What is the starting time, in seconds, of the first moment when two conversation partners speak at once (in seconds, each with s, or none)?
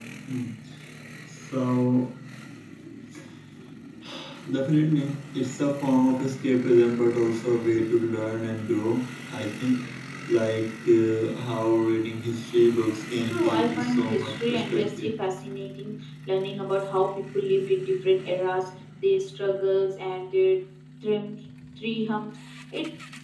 13.2 s